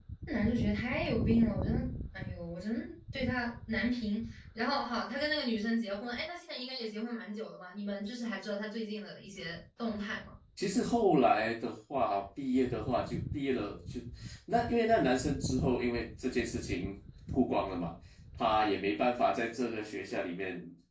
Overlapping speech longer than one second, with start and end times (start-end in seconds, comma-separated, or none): none